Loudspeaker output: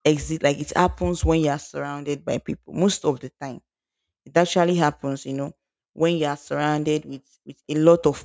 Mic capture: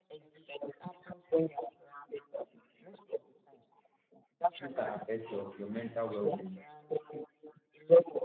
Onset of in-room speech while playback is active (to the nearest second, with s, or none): 5 s